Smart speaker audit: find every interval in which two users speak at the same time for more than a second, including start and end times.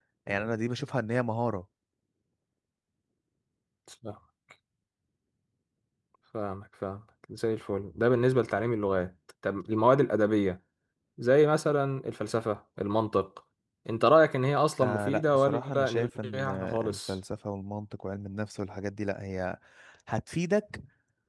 14.8-17.2

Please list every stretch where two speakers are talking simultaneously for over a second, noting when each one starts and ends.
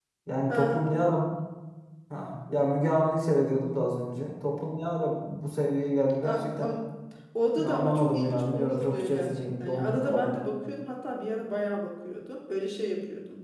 7.6-10.3

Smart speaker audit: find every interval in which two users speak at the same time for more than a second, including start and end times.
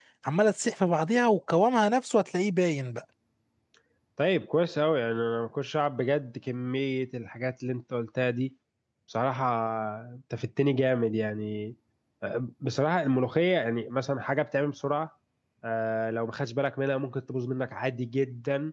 none

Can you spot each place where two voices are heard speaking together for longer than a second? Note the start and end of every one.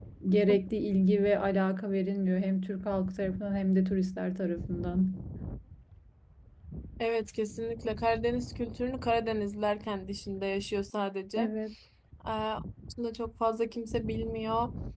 none

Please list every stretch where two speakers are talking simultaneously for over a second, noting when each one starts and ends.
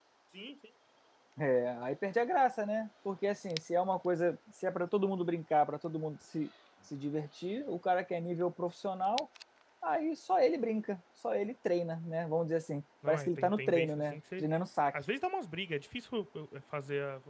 13.1-14.4

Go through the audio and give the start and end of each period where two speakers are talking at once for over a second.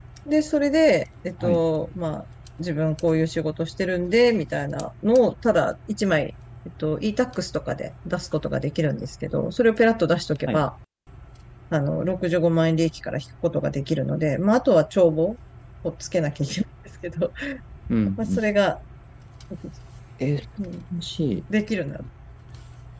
none

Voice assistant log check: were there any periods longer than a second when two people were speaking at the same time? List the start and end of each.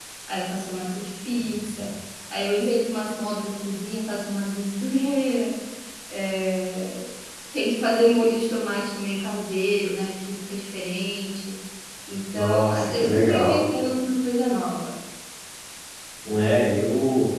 12.3-13.6

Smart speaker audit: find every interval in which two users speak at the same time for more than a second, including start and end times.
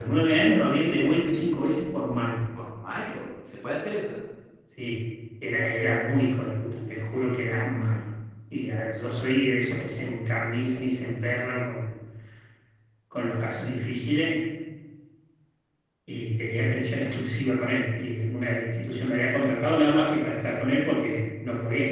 none

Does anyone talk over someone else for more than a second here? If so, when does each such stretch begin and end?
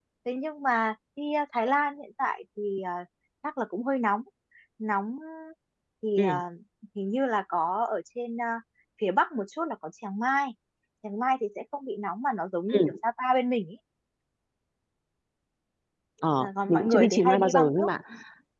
16.4-17.9

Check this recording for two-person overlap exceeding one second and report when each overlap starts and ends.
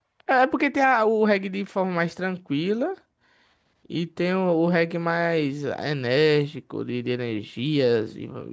none

